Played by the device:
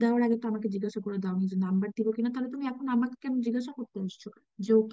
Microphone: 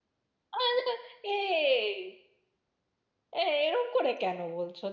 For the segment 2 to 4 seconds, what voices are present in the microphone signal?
user only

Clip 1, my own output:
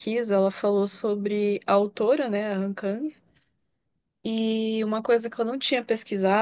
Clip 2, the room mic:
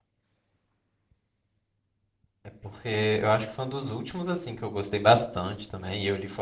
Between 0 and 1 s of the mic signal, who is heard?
neither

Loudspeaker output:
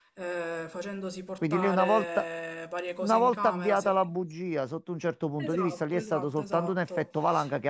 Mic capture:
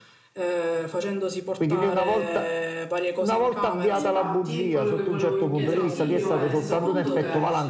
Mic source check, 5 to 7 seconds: both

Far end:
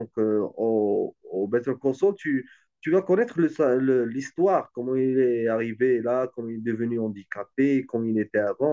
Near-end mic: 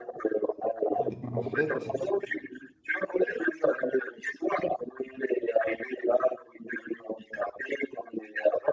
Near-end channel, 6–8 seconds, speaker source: echo only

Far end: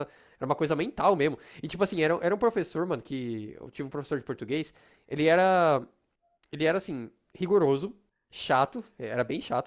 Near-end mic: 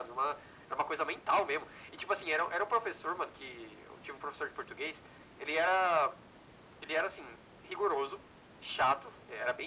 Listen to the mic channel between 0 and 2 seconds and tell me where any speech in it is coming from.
echo only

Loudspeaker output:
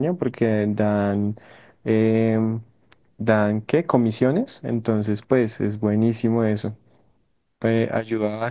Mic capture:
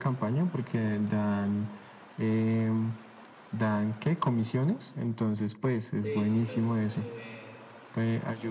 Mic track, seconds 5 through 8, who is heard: both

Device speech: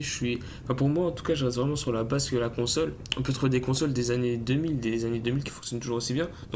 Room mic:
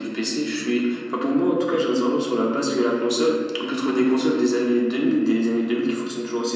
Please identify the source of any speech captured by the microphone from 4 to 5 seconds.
echo only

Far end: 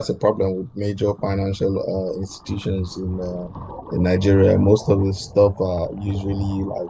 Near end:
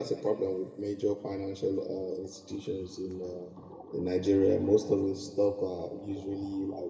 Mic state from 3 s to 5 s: echo only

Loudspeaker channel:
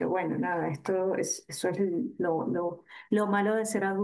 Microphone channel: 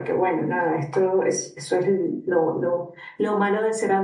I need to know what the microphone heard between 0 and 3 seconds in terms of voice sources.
echo only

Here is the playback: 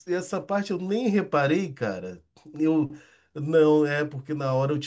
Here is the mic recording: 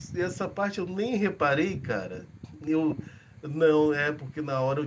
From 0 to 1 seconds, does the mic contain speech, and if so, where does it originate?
echo only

